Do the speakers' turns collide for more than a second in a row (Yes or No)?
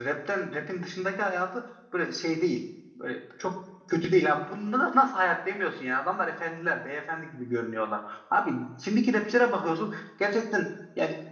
No